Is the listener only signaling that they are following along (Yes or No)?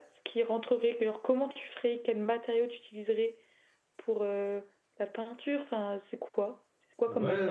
No